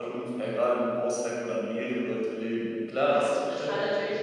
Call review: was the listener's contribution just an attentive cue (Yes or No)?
No